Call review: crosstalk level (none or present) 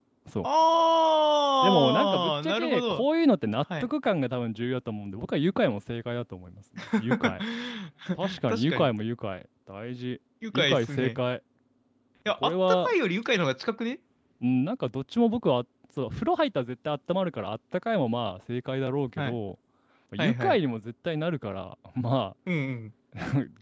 present